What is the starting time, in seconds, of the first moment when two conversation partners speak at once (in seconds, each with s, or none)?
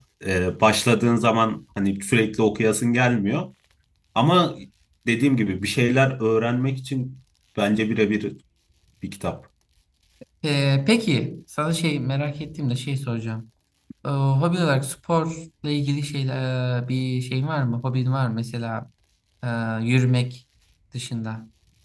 none